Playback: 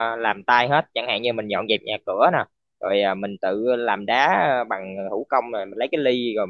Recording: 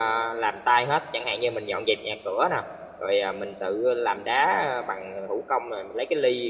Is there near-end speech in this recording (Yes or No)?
No